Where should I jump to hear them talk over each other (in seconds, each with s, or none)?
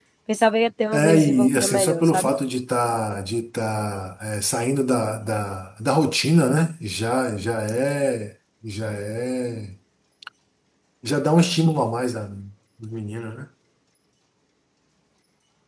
0.9 s